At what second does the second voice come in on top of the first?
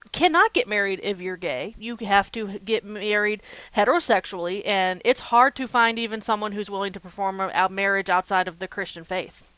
none

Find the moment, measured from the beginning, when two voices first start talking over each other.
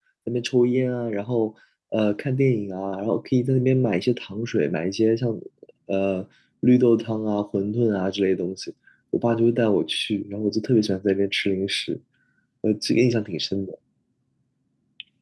none

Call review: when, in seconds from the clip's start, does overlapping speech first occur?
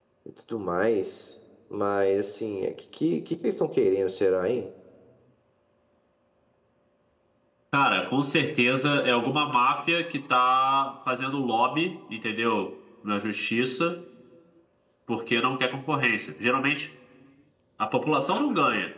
none

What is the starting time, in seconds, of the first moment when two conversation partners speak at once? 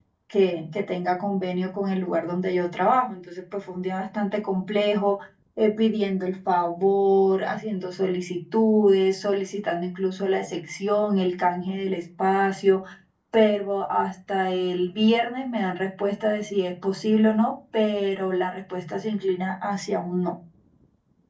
none

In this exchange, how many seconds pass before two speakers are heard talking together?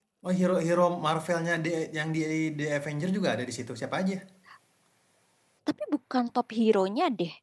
none

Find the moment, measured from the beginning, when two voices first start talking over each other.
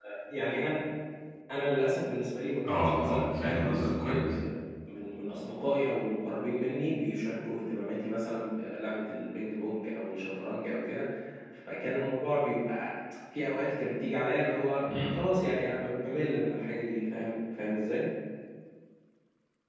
2.7 s

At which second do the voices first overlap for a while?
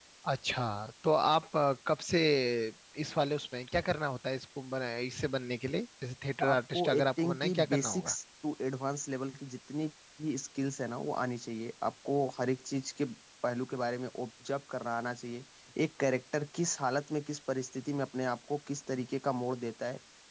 6.4 s

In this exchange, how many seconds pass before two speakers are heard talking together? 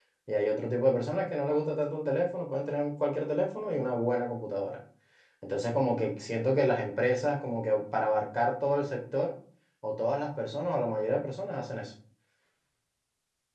none

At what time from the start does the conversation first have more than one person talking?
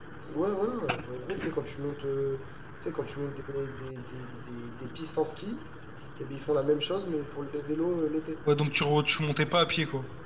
none

